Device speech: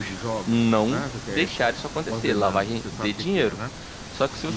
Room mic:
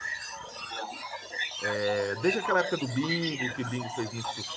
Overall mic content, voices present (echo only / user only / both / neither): both